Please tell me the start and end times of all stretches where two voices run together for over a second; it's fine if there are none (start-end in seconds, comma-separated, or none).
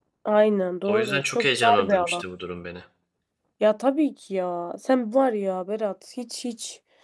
0.9-2.2